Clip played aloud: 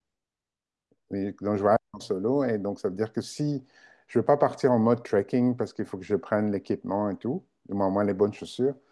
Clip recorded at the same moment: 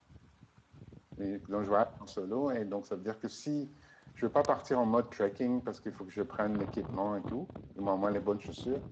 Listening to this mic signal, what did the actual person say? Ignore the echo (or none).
none